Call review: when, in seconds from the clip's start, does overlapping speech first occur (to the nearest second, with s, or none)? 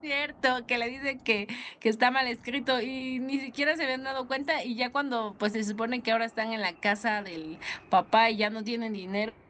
none